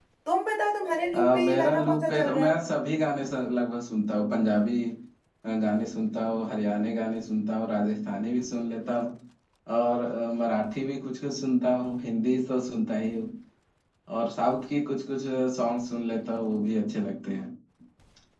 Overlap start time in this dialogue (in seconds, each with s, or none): 1.1 s